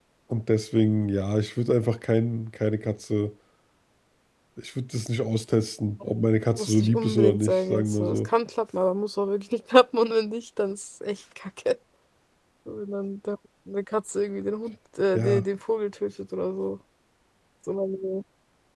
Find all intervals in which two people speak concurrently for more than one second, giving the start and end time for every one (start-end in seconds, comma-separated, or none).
6.6-8.3